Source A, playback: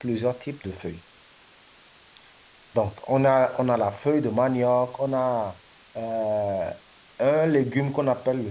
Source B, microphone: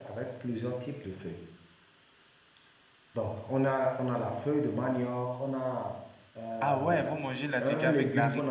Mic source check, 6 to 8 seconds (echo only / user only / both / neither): both